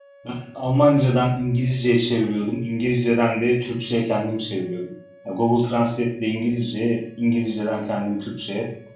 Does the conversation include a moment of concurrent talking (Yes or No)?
No